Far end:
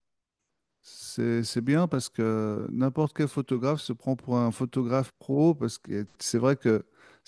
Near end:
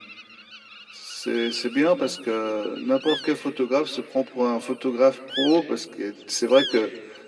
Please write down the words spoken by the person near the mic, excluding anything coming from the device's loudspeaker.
none

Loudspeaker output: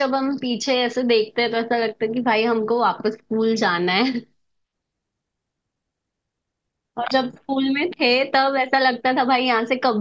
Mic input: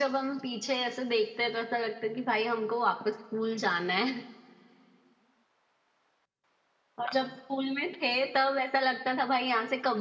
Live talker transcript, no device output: none

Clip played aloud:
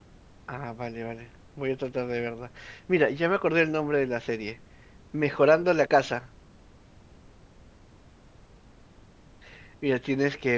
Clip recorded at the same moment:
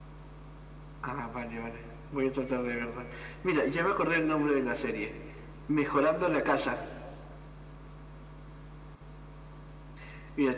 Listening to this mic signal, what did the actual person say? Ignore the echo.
none

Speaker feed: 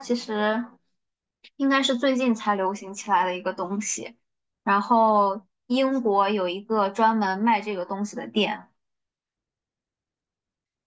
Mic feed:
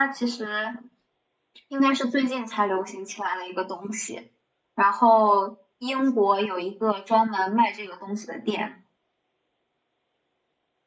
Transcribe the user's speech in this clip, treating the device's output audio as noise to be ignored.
none

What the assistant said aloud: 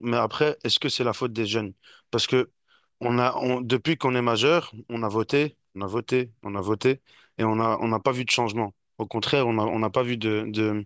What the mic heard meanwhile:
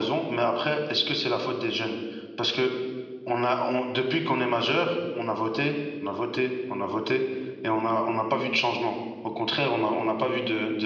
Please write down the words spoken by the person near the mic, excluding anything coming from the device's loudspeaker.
none

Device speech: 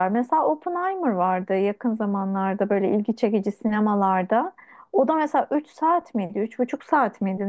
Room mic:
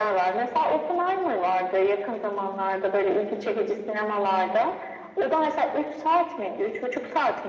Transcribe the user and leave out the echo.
none

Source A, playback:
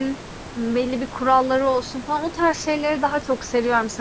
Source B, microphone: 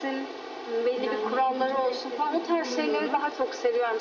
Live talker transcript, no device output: Yani, hem çok estetik buluyorum

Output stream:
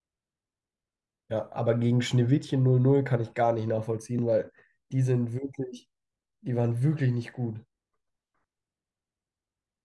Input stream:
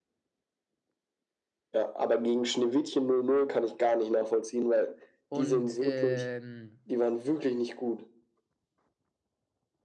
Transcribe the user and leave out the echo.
Und ähm,

